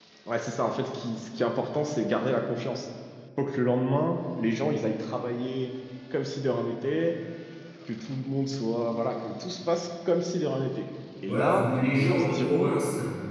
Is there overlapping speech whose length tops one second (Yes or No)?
Yes